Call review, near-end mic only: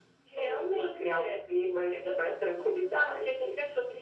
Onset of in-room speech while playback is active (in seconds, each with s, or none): none